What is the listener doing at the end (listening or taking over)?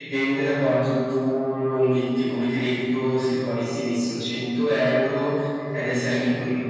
listening